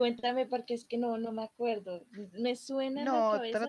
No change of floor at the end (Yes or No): No